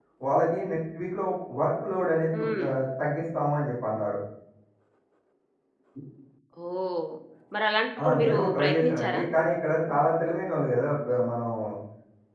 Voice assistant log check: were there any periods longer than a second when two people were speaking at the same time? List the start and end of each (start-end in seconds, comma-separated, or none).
8.0-9.2